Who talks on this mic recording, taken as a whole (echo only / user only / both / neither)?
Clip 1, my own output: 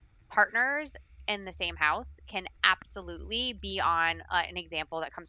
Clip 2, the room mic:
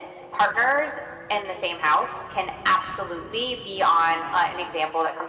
echo only